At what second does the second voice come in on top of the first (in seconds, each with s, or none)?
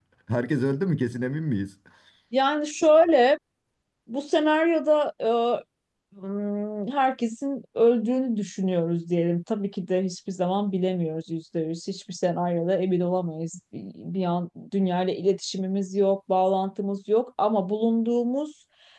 none